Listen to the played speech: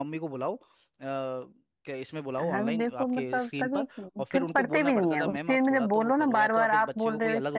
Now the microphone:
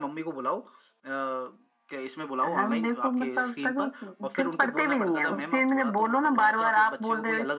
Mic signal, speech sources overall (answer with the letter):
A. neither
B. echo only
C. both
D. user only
B